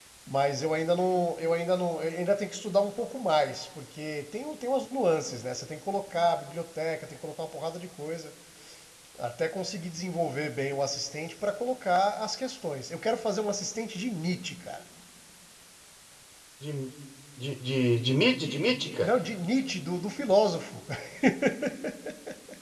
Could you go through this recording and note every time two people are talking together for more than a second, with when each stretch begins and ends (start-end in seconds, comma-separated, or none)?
none